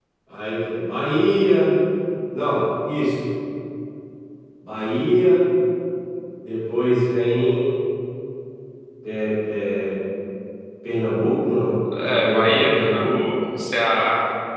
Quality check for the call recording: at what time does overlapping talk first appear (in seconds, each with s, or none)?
11.9 s